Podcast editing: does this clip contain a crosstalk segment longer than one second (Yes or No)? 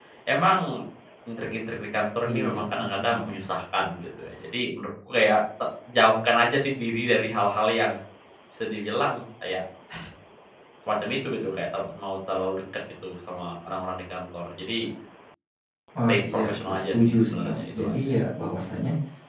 Yes